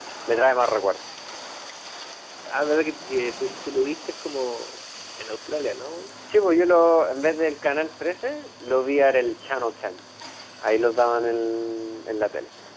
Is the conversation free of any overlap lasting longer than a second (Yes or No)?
Yes